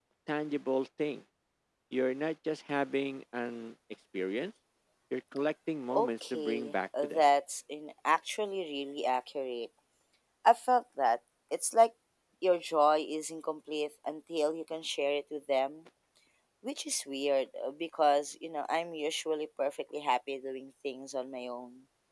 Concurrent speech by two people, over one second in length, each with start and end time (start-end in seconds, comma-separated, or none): 5.9-7.2